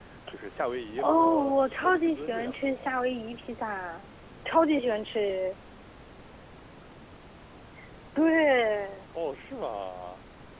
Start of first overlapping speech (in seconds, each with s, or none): 1.0 s